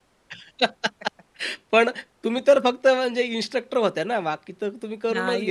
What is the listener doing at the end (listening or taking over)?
taking over